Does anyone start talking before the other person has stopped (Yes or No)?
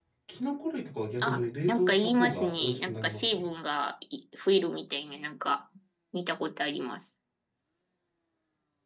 Yes